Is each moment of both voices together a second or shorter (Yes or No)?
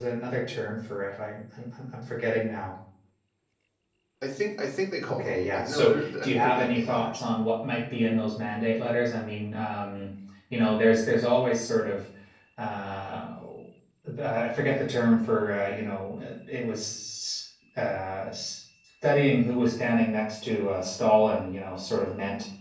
No